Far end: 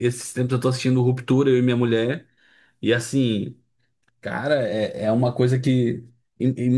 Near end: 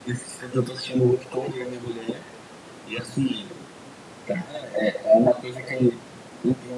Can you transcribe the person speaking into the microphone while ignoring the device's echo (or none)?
none